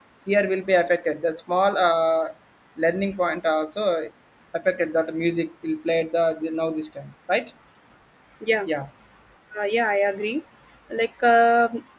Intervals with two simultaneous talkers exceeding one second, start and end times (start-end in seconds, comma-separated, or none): none